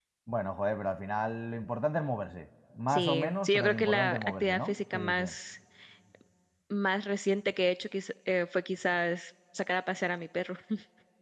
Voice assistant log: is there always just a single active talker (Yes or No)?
No